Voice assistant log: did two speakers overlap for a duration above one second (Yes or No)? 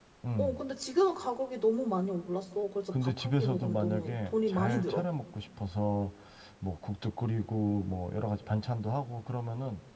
Yes